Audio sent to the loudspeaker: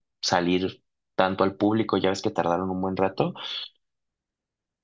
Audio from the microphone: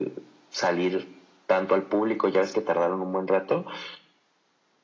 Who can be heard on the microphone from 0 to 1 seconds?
echo only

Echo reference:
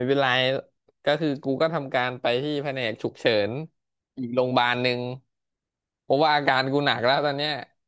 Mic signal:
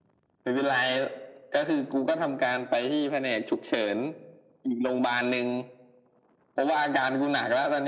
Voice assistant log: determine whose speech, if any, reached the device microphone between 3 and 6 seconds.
echo only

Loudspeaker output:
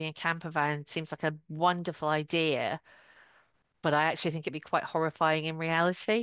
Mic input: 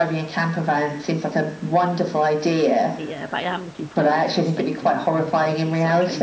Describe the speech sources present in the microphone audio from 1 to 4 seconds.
both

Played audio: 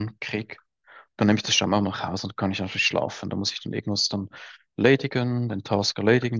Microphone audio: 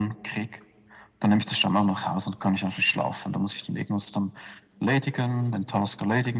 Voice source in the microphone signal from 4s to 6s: echo only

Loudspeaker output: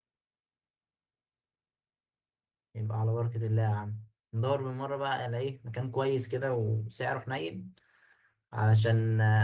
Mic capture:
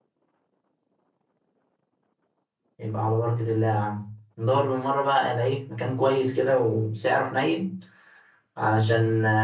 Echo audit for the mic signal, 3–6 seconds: echo only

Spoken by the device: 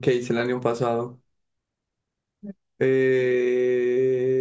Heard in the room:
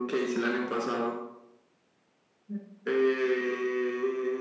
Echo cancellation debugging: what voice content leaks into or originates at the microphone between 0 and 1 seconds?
echo only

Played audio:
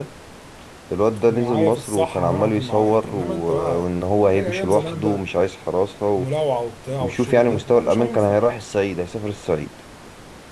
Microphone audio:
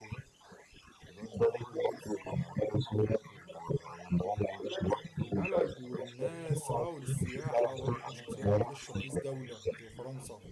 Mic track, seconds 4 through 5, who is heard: echo only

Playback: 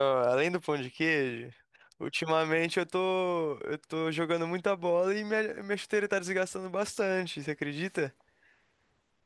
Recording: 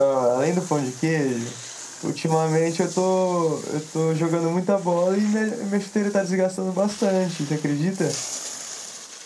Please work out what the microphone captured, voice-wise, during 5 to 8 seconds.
echo only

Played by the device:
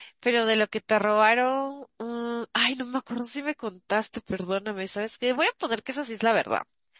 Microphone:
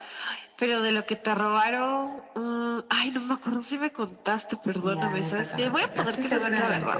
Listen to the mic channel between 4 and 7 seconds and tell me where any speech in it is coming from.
both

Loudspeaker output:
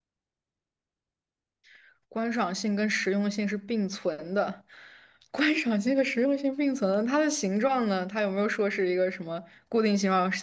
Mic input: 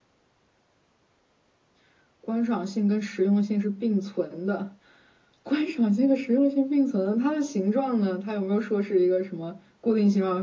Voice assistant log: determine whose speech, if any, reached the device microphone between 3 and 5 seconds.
echo only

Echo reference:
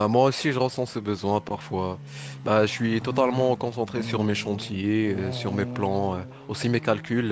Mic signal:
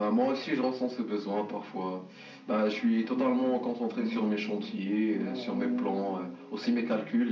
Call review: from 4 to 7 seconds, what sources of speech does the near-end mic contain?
echo only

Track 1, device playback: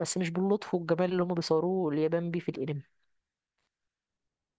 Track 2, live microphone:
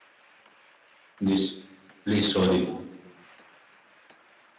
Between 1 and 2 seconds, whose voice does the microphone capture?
user only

